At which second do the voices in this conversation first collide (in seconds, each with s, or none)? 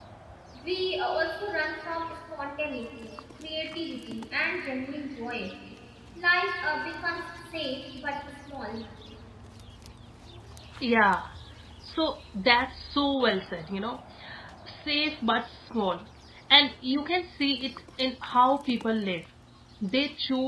none